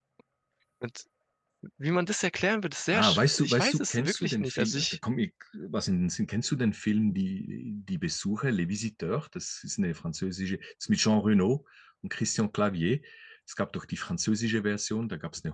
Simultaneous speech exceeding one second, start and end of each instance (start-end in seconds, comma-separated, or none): 2.9-5.0